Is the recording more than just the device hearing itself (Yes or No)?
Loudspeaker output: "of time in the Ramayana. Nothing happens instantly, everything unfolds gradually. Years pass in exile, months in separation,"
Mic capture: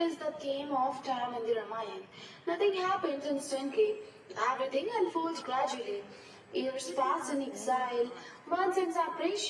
Yes